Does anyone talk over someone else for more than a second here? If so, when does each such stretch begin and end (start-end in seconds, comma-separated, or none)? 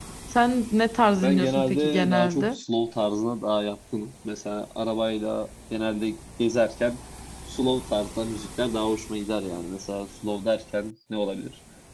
1.2-2.6